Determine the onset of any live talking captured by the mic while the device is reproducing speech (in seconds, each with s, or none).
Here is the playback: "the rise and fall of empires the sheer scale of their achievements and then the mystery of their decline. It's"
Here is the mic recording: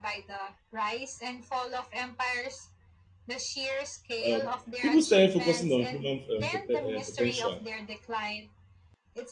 4.2 s